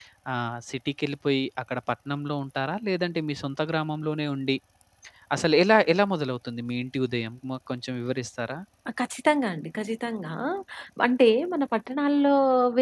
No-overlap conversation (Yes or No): Yes